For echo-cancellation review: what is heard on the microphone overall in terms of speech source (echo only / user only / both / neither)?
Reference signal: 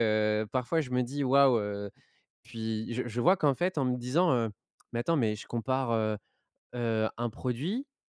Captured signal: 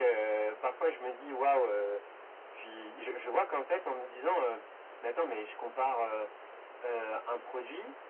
echo only